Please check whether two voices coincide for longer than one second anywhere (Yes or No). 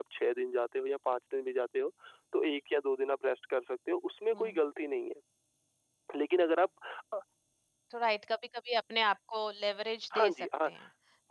No